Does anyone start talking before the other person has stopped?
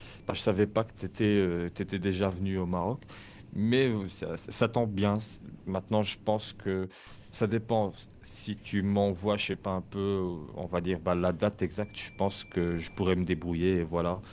No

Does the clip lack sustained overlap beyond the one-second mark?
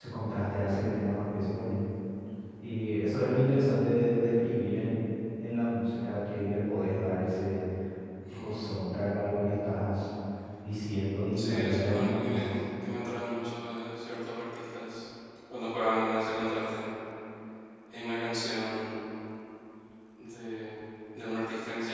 No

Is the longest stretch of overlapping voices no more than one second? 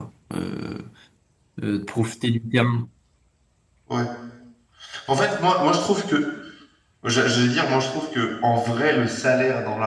Yes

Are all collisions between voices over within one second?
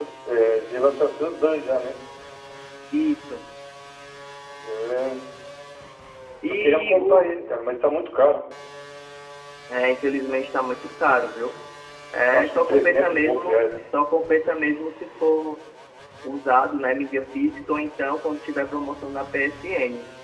No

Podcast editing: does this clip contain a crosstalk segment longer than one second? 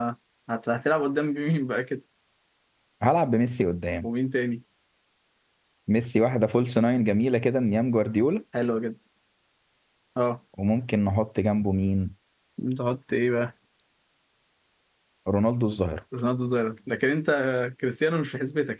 No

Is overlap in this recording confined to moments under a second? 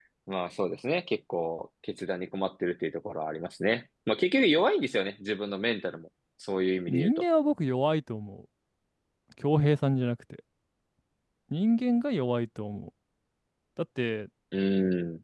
Yes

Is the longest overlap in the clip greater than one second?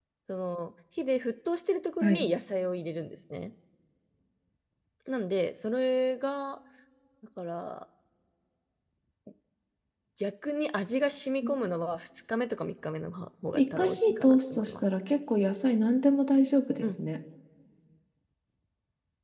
Yes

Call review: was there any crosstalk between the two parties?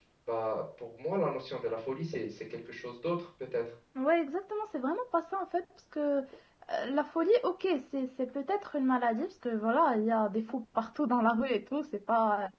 No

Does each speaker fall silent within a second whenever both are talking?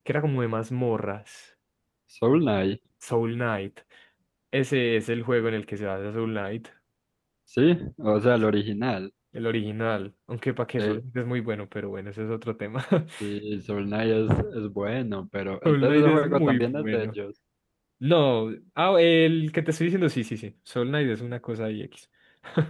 No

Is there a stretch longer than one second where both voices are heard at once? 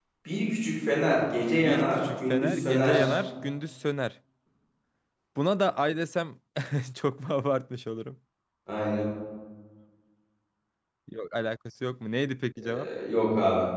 Yes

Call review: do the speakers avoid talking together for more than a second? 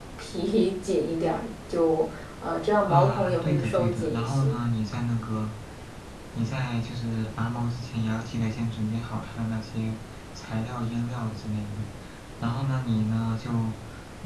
No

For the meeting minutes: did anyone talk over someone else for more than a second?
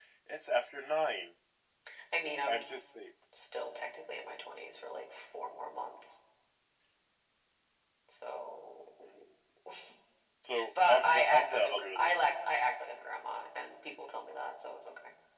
Yes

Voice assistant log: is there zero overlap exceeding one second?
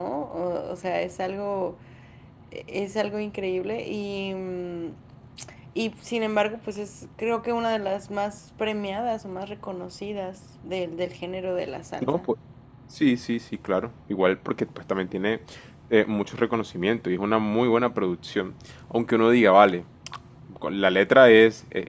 Yes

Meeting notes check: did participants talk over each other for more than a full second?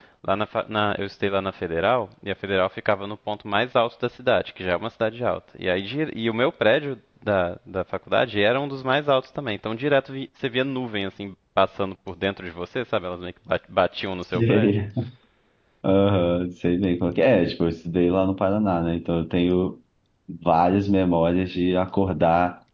No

